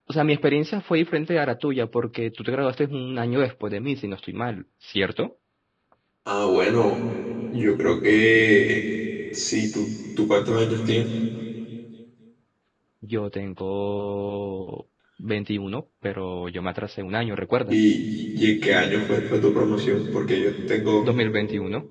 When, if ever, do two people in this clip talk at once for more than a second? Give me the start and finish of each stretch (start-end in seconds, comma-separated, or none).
none